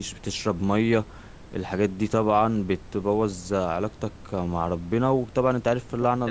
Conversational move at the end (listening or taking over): listening